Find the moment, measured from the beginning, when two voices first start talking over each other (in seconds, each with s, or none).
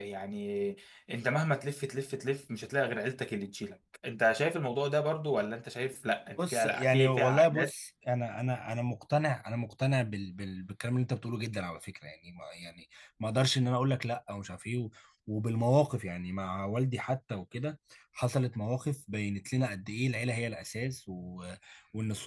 6.4 s